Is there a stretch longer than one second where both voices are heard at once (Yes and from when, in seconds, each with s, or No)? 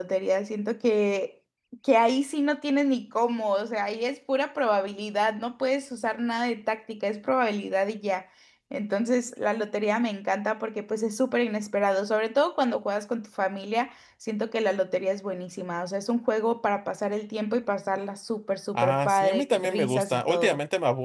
Yes, from 18.7 s